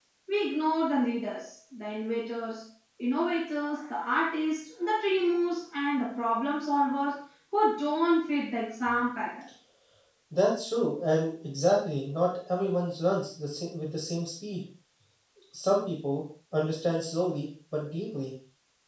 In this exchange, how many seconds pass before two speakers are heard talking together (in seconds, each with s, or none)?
none